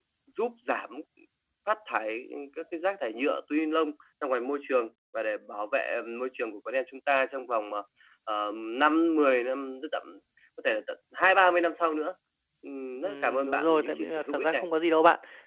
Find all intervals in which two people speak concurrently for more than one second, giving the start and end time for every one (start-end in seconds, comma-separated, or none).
13.0-14.7